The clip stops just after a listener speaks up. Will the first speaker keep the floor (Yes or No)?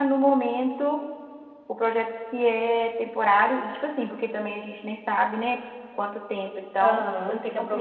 No